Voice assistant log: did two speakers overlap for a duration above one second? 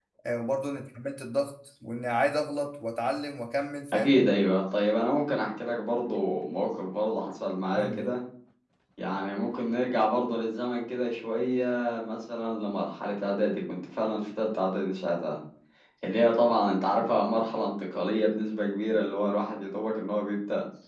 No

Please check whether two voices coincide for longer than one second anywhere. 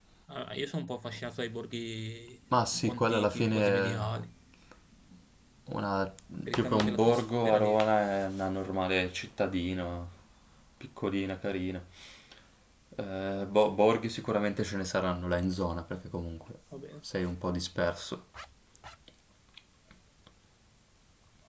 Yes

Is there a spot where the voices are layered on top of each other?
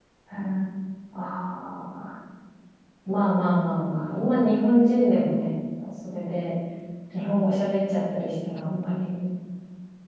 No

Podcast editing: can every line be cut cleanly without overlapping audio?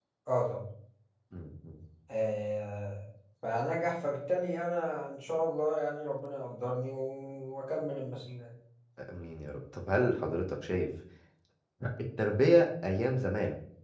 Yes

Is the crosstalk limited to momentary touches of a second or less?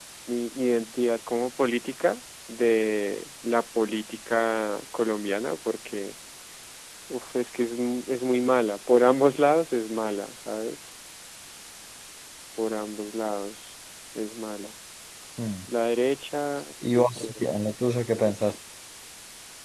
Yes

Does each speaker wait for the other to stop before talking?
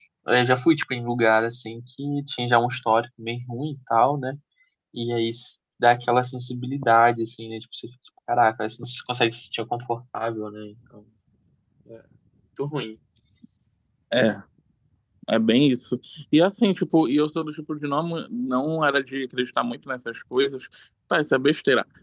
Yes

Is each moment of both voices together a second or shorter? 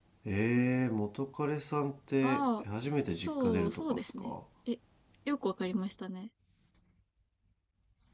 No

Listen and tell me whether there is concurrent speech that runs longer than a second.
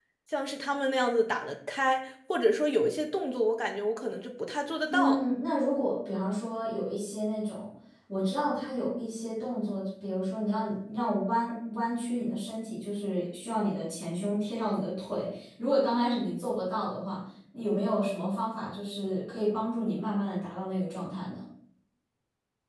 No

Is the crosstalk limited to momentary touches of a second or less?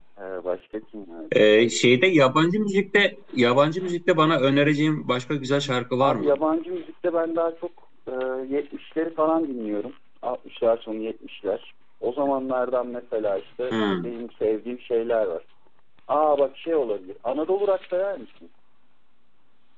Yes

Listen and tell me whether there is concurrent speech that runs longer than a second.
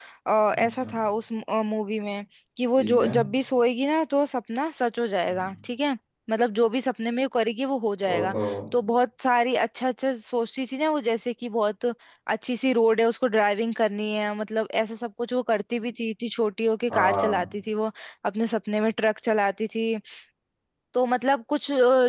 No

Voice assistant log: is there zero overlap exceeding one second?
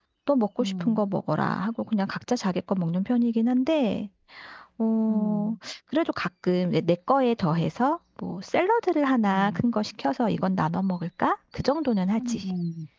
Yes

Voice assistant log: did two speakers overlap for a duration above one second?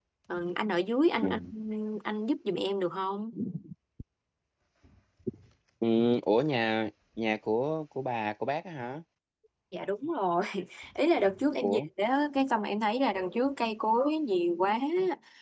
No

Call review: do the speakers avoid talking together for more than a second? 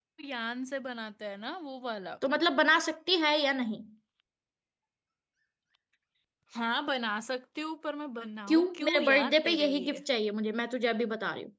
No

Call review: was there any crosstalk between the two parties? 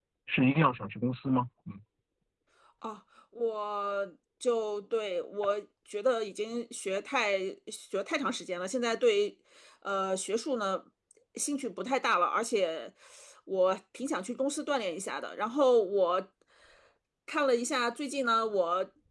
No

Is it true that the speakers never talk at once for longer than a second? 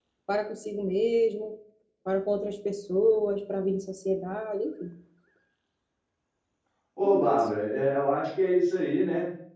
Yes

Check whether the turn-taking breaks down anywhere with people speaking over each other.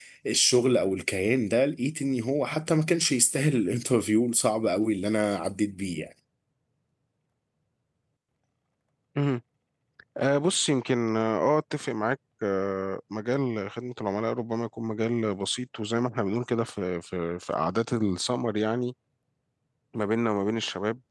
No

